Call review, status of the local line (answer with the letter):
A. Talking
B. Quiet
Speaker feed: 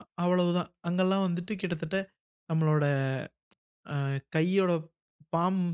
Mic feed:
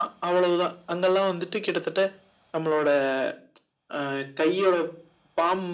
B